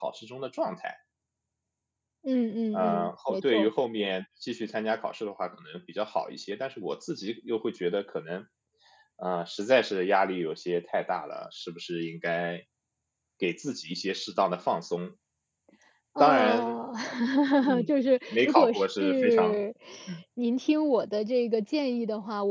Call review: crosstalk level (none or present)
present